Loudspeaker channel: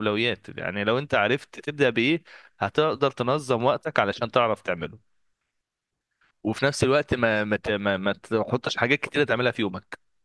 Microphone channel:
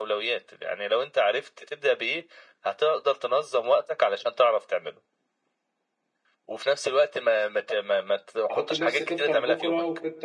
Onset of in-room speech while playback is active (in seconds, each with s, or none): 8.5 s